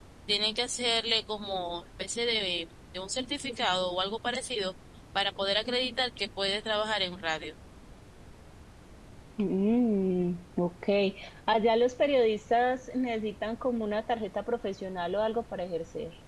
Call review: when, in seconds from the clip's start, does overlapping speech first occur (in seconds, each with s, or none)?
none